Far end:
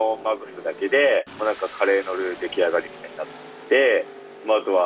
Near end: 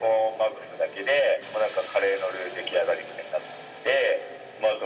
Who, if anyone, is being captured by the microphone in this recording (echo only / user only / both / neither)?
echo only